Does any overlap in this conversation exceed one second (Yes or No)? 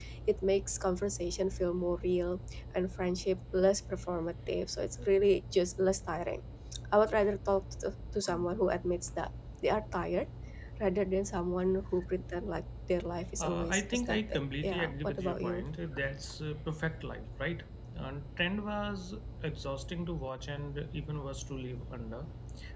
Yes